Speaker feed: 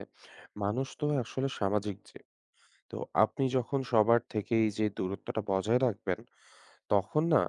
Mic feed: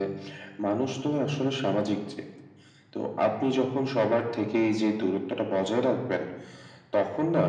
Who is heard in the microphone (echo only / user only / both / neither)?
echo only